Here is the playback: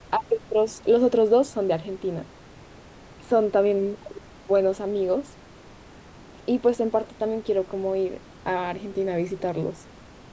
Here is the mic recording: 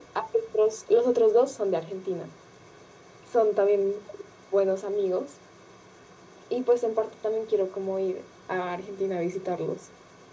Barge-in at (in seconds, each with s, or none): none